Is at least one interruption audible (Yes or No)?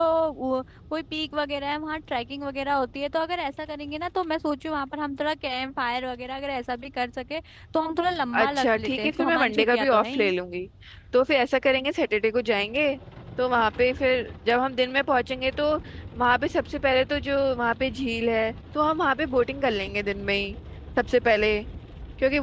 Yes